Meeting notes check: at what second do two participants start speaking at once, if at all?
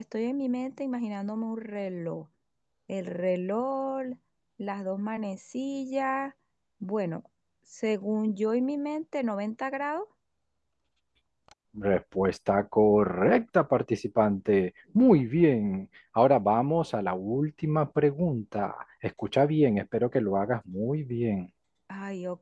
none

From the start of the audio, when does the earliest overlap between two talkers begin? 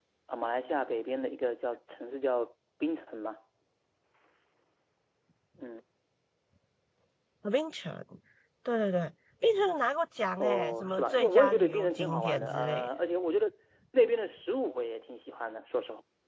10.4 s

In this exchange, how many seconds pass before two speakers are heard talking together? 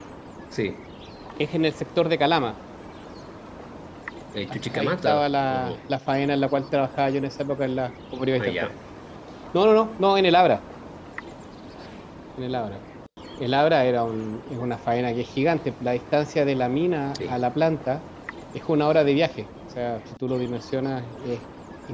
4.5 s

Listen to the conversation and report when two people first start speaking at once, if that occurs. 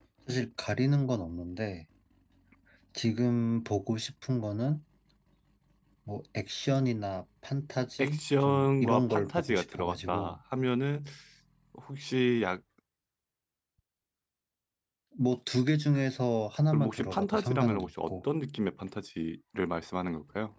8.0 s

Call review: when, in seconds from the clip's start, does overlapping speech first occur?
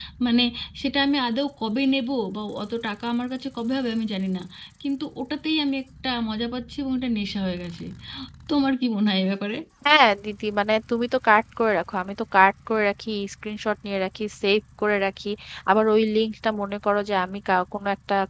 none

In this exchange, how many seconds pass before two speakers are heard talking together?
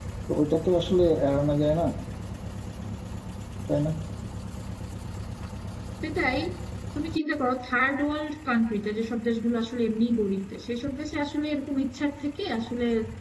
none

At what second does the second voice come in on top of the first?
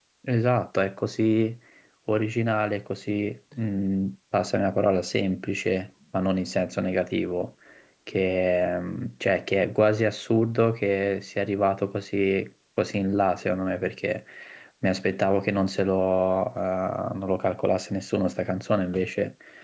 none

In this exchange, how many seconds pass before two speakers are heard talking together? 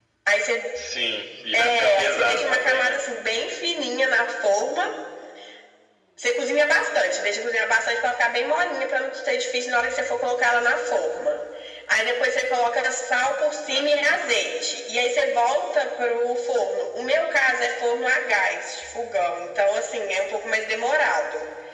1.5 s

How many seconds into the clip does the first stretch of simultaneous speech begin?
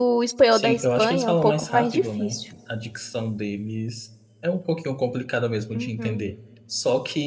0.5 s

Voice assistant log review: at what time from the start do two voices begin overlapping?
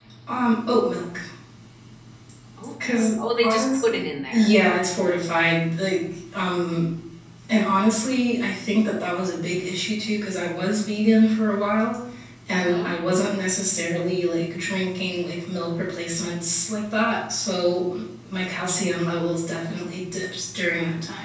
2.8 s

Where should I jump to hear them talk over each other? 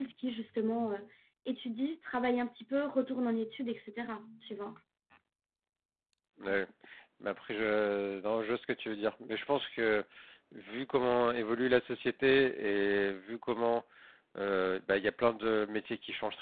none

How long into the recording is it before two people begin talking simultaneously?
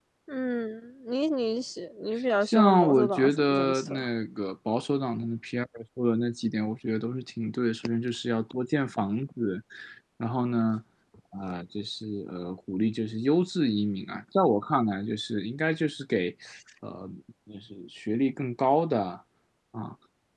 2.4 s

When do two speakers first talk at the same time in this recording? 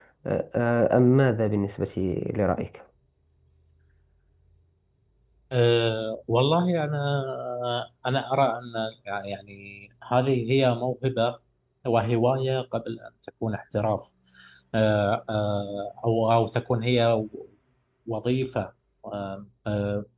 none

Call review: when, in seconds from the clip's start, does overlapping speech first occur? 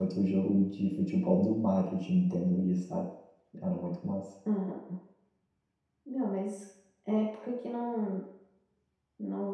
none

